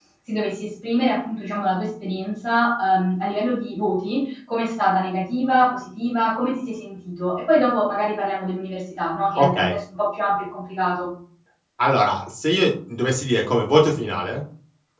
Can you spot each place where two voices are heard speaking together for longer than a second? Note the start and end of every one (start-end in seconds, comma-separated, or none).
none